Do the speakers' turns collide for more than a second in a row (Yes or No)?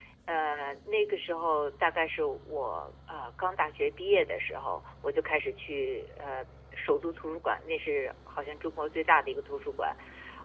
No